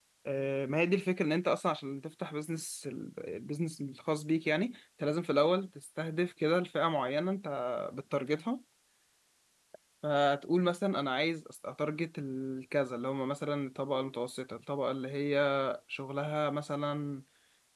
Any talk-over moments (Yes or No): No